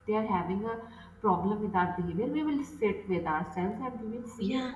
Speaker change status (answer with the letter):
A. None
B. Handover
A